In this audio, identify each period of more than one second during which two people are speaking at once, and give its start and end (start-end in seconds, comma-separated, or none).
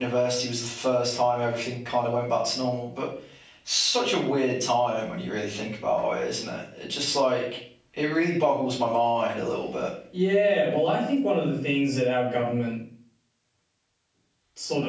none